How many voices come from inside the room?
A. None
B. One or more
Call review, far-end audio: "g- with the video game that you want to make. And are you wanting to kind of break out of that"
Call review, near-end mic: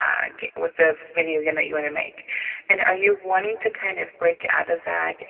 A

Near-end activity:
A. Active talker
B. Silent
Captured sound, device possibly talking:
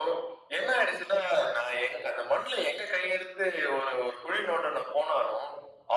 B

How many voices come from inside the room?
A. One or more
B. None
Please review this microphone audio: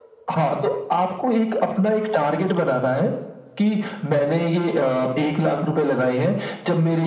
B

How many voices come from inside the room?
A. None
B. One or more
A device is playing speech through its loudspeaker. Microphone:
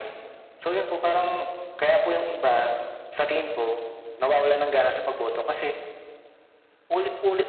A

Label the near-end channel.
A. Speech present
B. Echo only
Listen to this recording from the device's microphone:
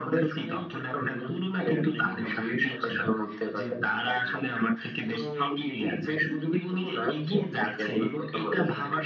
B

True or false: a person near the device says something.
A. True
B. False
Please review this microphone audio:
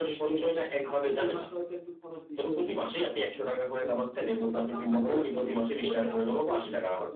A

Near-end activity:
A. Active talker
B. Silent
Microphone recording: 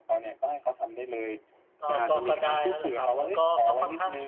A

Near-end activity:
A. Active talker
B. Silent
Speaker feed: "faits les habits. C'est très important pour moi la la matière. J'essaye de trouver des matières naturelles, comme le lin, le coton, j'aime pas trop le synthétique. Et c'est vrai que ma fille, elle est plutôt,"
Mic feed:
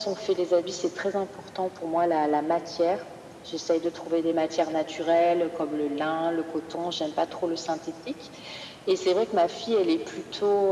B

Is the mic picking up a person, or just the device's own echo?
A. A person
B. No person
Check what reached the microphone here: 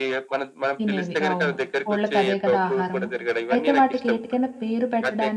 A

